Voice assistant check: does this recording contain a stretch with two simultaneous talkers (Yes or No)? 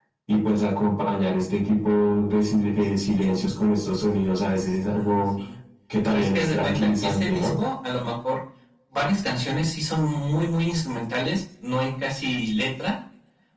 Yes